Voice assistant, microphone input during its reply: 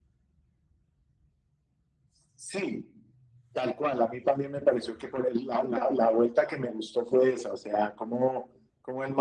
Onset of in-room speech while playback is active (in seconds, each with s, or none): none